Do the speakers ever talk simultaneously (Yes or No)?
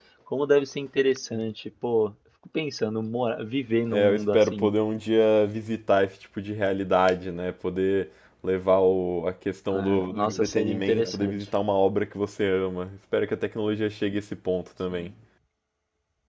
Yes